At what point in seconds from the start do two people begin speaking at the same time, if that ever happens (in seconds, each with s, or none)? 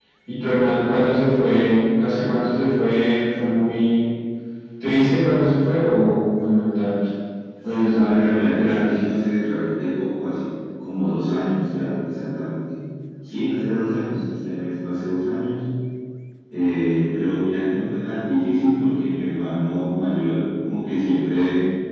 7.6 s